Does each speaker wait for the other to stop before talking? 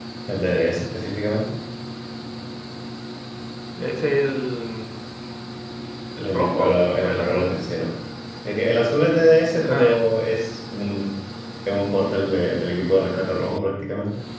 No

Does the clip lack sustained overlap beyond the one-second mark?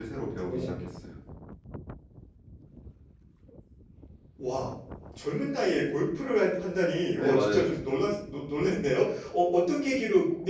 Yes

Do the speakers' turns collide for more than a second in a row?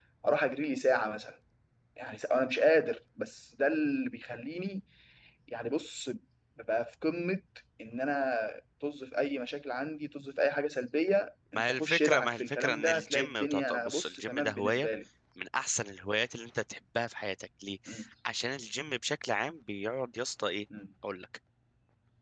Yes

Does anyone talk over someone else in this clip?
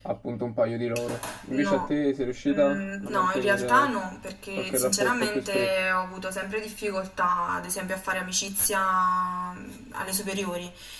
Yes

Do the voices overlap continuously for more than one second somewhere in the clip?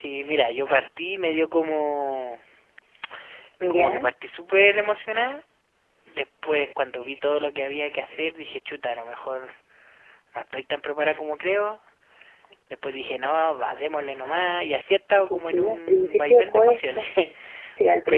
Yes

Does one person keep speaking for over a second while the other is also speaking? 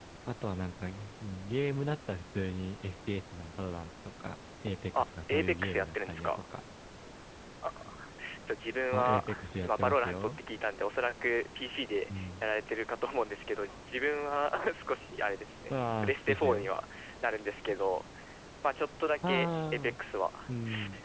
Yes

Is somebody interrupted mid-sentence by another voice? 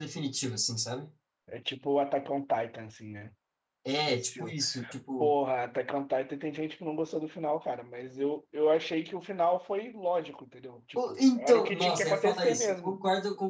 Yes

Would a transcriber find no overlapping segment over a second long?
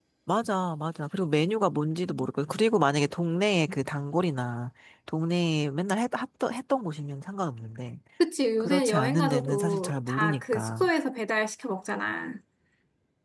No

